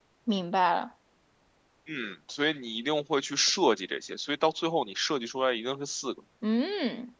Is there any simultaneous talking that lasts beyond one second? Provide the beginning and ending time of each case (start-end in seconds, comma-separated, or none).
none